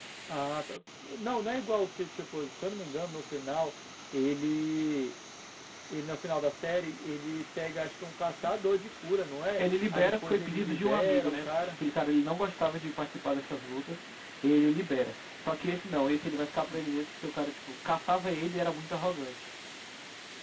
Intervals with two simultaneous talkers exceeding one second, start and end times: 9.6-11.7

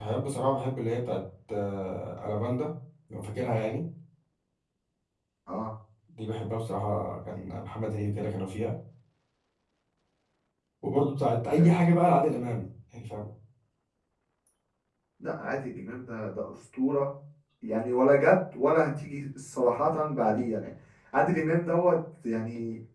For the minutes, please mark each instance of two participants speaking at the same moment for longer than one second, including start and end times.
none

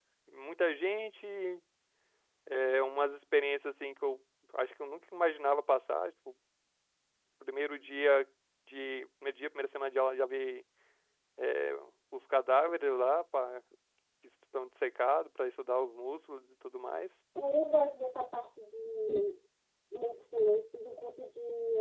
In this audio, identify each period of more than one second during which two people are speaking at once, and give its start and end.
none

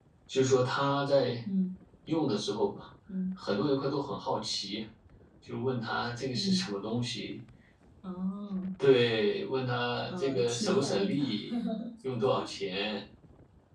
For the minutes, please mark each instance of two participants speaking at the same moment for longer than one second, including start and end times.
10.1-11.3

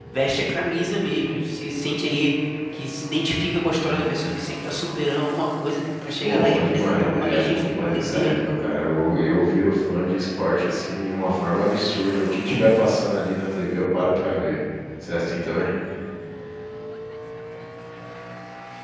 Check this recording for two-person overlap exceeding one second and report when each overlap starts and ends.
6.2-8.4

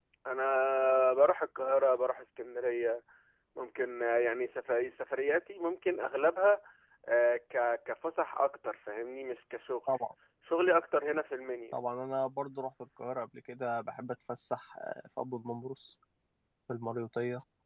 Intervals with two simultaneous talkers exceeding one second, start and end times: none

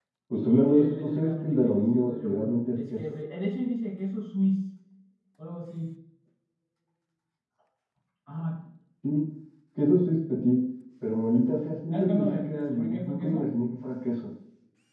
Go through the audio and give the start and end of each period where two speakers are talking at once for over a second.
0.7-3.1, 11.9-13.5

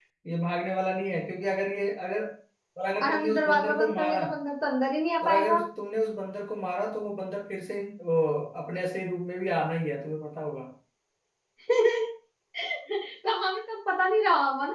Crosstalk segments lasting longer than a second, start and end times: 3.0-4.2

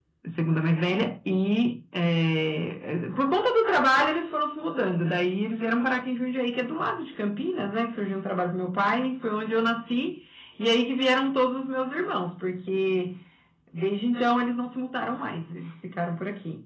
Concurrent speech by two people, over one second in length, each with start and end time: none

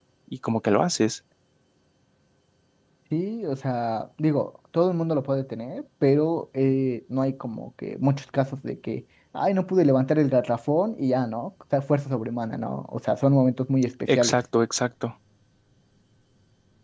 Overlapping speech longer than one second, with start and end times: none

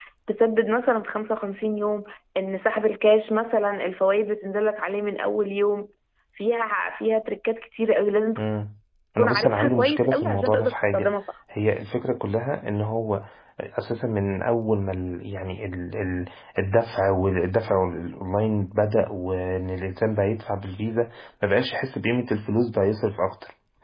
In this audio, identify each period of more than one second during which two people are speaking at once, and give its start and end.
9.2-11.1

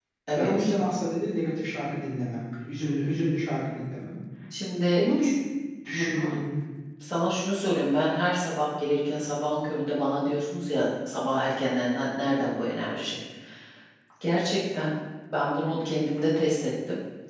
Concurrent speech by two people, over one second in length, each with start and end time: none

